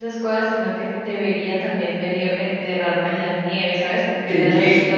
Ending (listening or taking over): listening